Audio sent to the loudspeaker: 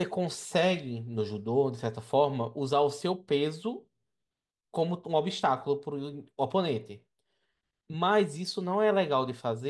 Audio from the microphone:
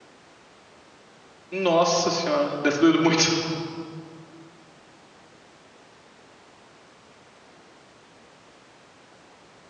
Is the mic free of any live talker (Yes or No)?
No